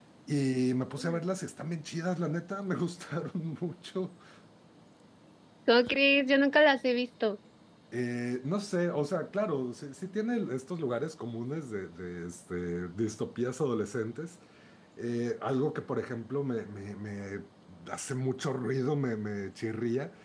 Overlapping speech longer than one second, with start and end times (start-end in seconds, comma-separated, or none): none